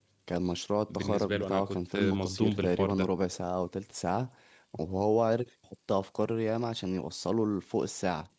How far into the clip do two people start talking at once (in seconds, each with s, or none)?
0.9 s